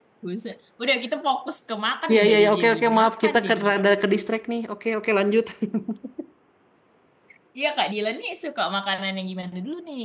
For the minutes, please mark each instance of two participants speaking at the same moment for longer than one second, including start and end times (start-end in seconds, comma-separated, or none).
2.1-3.8